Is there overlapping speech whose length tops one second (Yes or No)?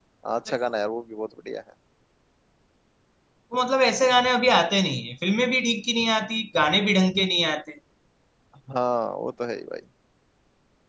No